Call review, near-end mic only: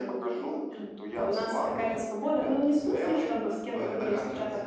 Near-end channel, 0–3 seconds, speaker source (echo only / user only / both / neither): echo only